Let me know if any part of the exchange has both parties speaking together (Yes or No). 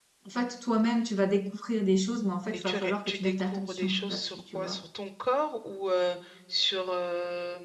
Yes